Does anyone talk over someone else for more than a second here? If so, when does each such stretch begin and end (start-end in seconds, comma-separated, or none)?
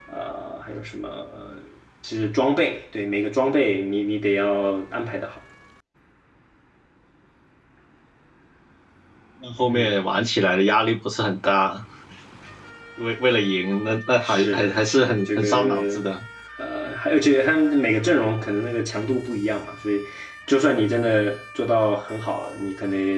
14.2-16.0